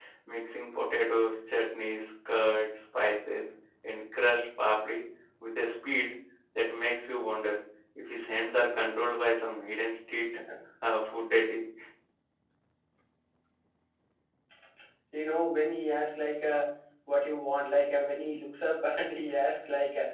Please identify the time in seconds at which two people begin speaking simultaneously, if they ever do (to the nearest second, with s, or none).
none